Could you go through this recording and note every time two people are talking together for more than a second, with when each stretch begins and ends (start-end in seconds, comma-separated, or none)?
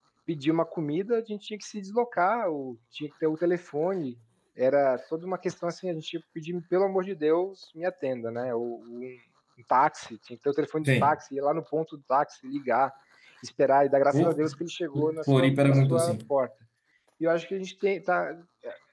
14.9-16.2